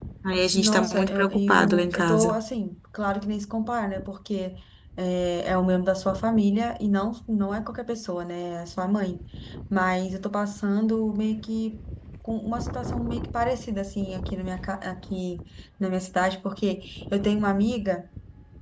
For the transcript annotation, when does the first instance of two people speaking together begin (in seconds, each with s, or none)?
0.5 s